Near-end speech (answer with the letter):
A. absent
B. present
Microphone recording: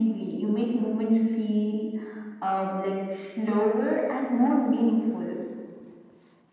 A